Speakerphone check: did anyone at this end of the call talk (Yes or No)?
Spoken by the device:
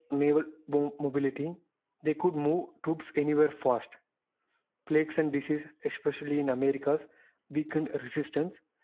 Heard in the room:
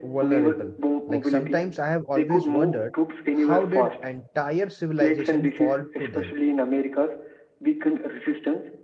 Yes